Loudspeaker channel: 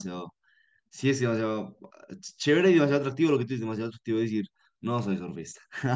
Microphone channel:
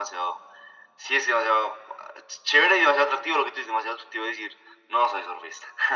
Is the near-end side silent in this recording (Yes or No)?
Yes